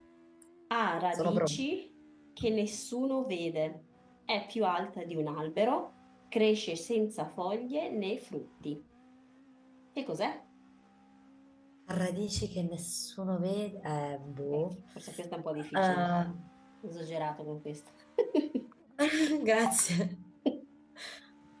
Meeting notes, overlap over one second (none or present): none